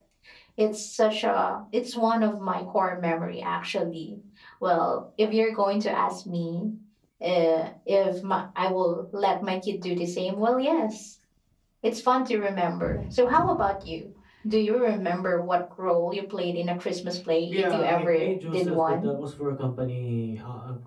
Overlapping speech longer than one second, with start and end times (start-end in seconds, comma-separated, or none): 17.4-19.1